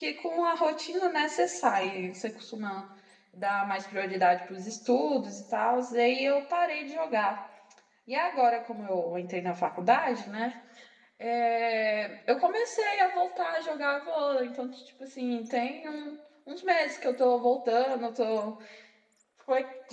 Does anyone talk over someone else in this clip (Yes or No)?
No